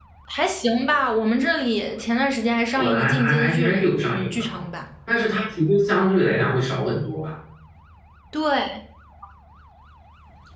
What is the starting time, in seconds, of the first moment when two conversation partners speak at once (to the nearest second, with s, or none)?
3 s